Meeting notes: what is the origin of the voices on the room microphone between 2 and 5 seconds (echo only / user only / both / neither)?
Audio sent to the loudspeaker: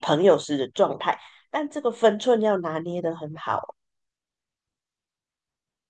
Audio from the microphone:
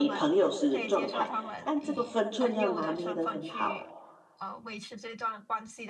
both